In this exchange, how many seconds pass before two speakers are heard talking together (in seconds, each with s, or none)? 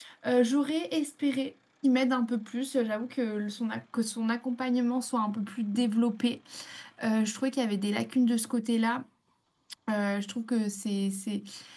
none